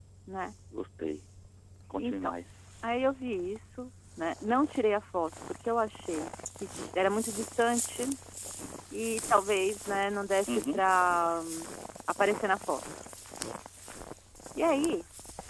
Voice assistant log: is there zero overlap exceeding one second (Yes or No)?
Yes